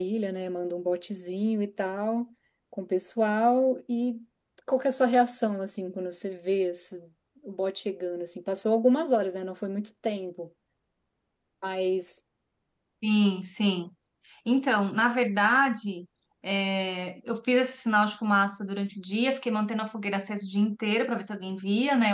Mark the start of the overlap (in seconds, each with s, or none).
none